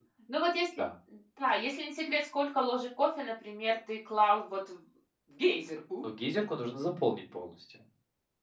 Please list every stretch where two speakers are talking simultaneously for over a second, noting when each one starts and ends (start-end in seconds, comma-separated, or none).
none